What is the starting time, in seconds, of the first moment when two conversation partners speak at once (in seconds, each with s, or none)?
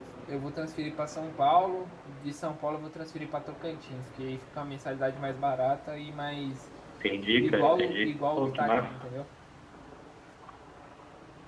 7.4 s